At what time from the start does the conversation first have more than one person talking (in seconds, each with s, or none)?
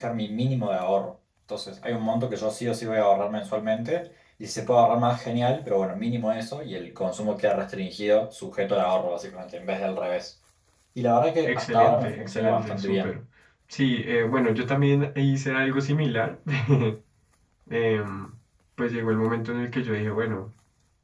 11.5 s